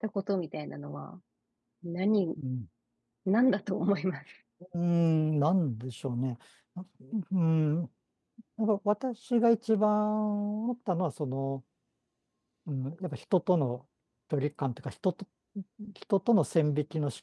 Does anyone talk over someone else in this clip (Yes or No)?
No